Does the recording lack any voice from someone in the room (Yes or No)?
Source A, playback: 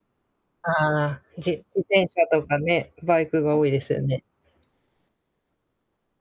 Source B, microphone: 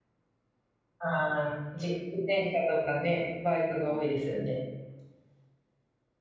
Yes